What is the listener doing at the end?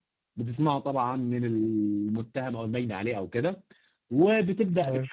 listening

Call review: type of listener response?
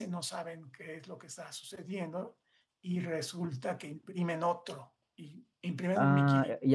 taking over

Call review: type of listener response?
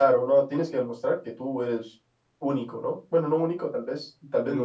listening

